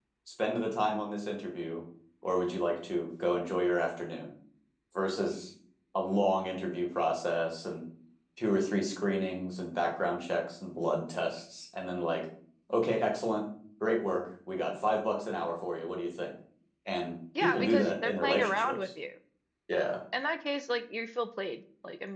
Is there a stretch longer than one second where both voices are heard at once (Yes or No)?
Yes